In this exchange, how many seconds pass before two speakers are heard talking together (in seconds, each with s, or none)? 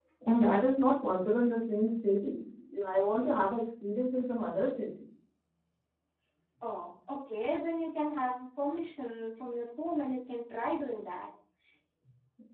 none